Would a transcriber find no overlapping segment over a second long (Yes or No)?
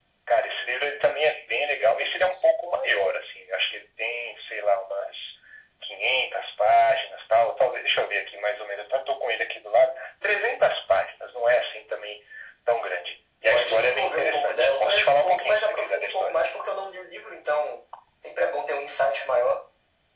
No